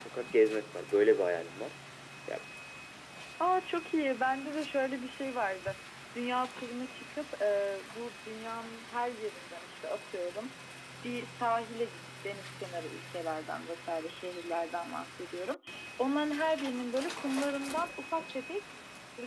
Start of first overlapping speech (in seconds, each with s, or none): none